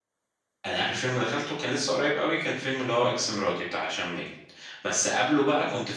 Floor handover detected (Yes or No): No